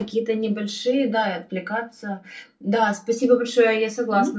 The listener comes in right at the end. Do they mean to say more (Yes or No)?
No